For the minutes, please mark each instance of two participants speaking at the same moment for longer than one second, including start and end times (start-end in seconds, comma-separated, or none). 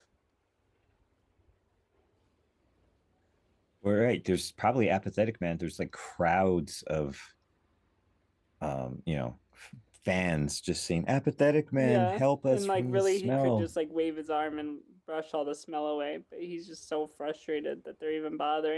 11.8-13.7